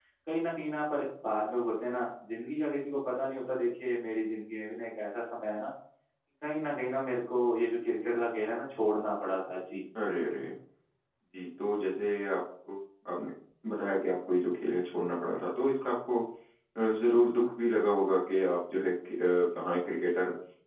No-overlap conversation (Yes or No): Yes